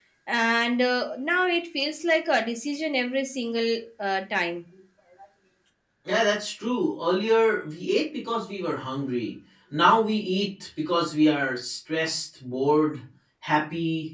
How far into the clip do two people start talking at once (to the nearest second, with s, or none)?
none